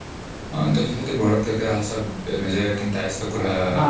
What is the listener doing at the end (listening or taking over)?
taking over